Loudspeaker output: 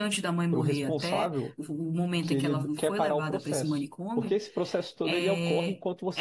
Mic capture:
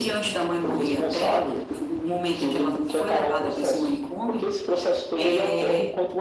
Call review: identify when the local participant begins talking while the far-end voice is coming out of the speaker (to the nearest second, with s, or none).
none